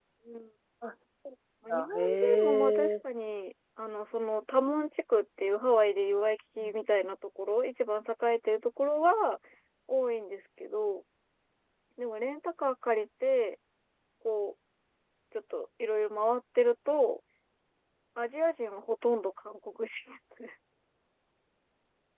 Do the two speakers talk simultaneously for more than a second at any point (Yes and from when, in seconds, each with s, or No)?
Yes, from 1.7 s